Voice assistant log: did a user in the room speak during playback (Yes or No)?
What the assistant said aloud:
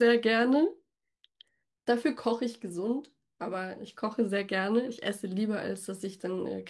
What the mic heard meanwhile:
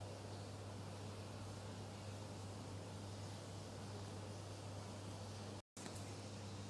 No